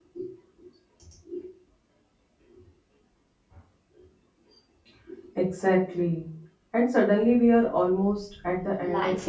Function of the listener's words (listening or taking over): taking over